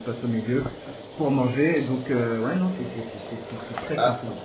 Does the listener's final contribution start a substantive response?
Yes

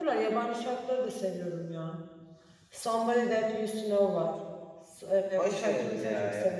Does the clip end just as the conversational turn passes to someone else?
Yes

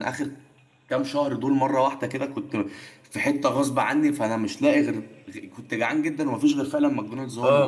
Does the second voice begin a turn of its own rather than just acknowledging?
Yes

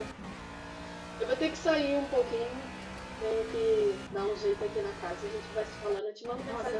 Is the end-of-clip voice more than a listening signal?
Yes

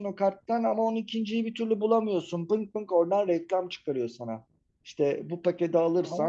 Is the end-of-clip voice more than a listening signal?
No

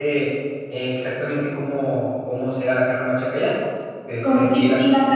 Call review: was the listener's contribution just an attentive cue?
No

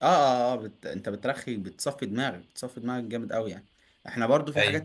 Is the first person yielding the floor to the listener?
No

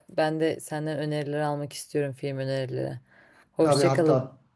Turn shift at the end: Yes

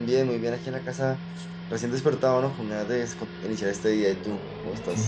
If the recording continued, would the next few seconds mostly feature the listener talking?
Yes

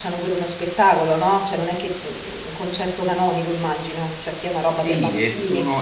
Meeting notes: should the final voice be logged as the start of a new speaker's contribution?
Yes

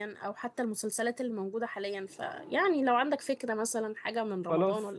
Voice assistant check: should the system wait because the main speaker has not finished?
No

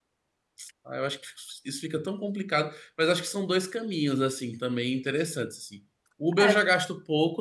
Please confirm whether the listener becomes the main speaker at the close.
No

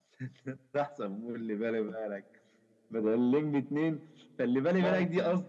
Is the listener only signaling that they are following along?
Yes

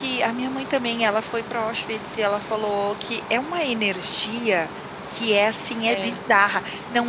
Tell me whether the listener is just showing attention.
Yes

